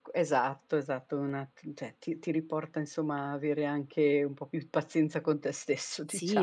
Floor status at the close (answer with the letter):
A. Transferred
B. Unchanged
A